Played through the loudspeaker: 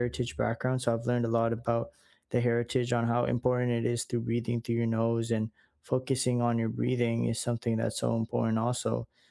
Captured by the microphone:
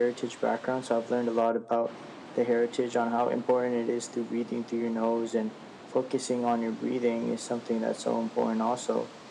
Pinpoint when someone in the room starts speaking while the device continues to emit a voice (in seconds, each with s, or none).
none